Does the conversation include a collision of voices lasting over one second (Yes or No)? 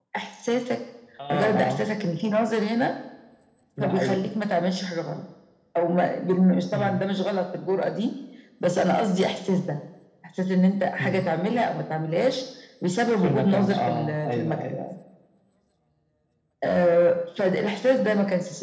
Yes